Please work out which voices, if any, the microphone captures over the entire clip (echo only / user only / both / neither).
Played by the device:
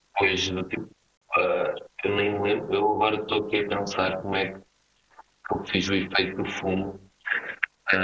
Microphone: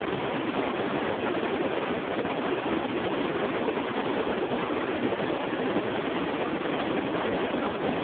neither